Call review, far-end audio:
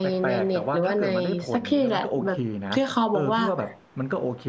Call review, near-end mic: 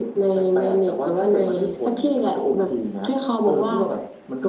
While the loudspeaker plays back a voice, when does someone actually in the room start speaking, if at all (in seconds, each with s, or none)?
none